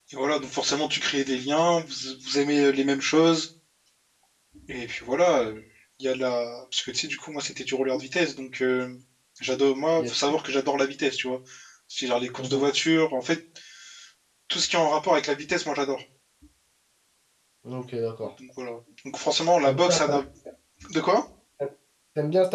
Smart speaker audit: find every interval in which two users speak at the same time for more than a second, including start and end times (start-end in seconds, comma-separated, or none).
none